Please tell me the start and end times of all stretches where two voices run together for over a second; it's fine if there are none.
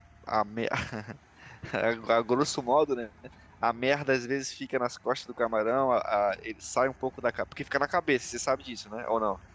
none

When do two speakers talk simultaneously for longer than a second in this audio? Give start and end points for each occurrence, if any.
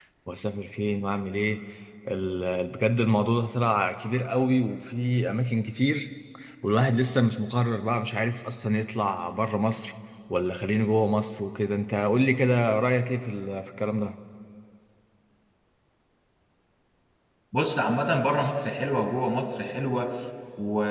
none

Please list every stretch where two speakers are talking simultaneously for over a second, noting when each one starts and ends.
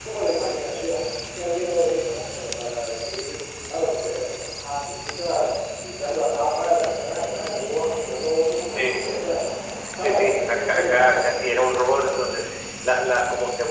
10.0-11.3

